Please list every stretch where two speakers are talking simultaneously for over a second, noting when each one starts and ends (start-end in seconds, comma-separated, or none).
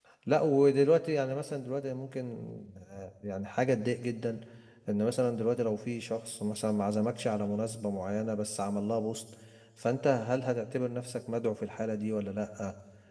none